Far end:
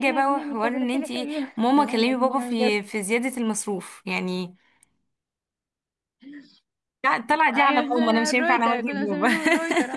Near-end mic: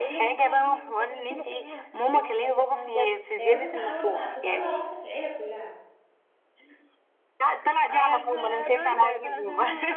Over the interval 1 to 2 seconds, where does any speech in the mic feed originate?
echo only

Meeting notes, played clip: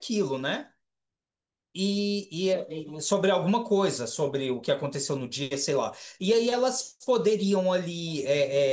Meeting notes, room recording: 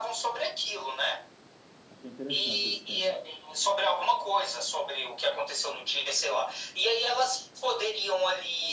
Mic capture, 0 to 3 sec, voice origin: both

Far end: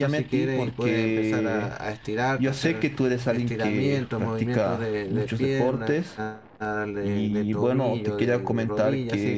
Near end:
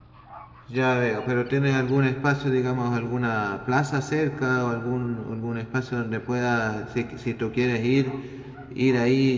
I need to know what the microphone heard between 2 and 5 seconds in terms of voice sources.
user only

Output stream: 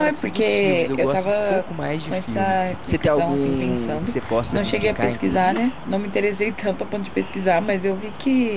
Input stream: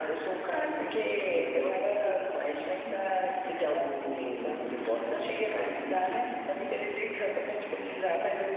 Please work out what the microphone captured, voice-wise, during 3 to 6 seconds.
echo only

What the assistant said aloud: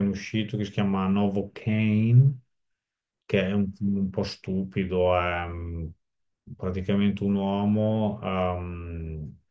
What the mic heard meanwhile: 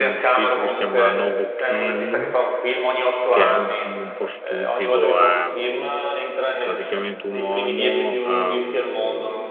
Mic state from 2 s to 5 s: both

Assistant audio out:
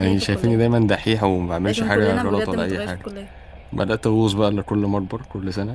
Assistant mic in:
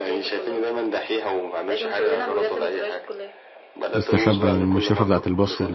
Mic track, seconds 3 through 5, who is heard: both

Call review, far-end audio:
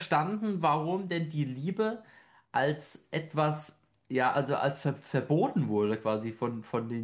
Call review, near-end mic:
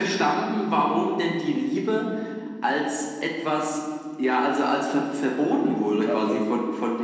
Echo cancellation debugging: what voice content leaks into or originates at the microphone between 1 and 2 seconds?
echo only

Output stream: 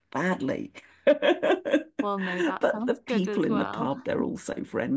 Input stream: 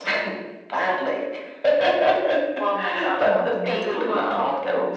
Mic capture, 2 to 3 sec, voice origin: echo only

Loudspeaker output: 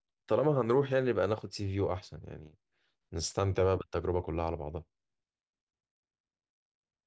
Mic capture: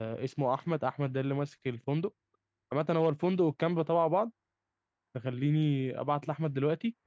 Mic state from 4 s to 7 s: user only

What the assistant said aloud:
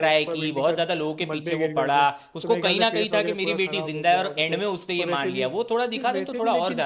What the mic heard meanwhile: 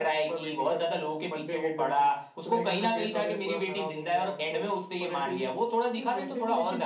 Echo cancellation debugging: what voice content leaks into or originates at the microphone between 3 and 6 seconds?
echo only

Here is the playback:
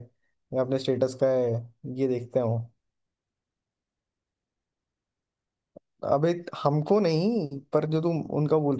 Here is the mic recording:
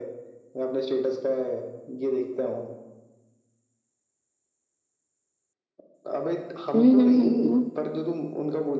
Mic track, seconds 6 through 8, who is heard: both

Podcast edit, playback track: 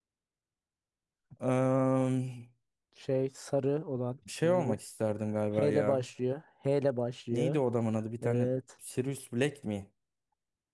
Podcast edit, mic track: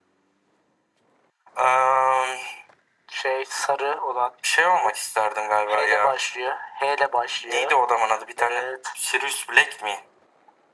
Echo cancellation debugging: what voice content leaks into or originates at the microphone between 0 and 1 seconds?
neither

